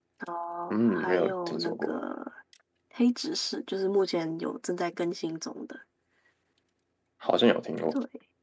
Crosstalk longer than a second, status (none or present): present